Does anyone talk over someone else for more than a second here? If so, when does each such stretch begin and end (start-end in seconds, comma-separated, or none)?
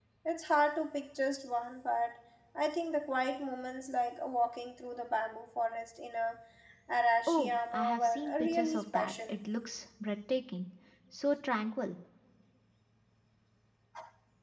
7.3-9.3